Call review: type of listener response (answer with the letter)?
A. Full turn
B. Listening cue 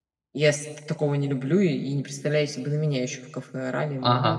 A